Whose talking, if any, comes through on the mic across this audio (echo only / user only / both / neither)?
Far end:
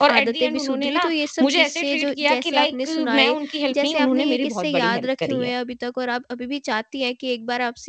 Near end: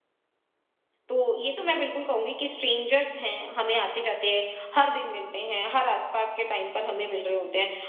user only